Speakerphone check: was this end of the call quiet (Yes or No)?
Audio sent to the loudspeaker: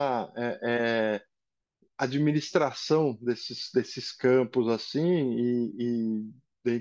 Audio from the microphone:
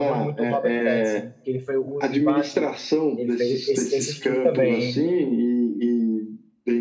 No